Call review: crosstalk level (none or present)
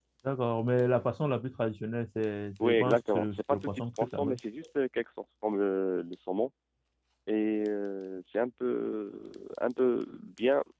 present